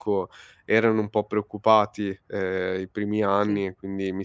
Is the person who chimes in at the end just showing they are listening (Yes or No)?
Yes